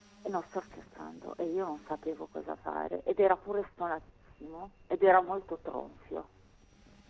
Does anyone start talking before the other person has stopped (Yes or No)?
No